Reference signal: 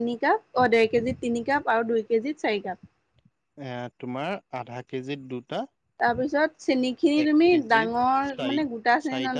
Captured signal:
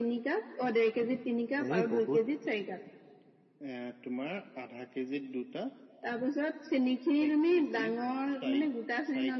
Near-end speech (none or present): present